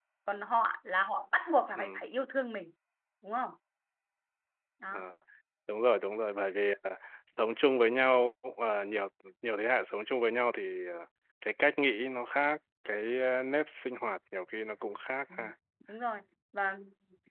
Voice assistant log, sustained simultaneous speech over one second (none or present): none